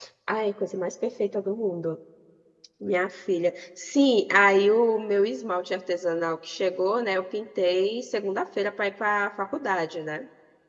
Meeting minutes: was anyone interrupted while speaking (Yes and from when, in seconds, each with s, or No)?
No